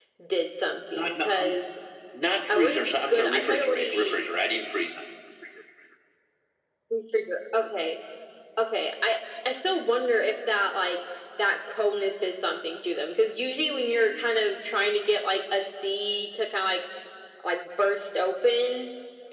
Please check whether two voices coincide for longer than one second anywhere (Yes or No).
Yes